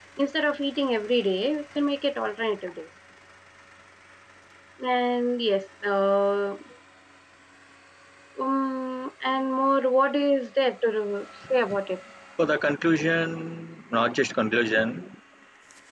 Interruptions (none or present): none